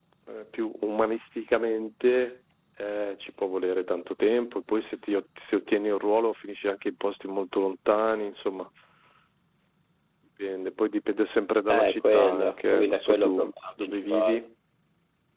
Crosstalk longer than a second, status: present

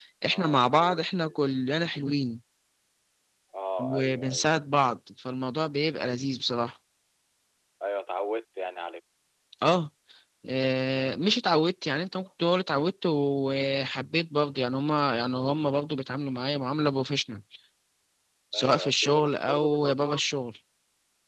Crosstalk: present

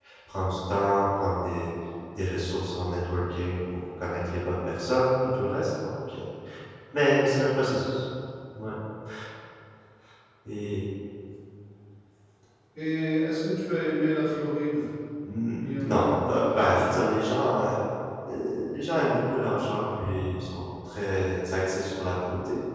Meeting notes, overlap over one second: present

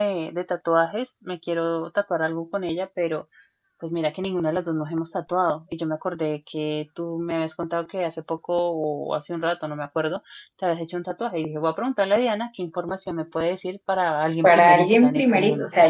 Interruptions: present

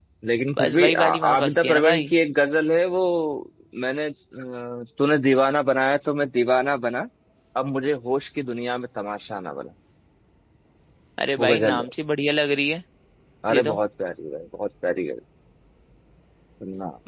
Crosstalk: present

